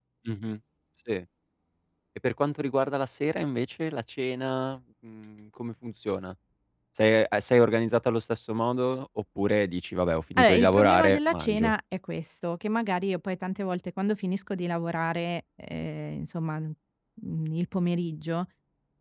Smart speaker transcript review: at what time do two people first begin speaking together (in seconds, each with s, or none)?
10.4 s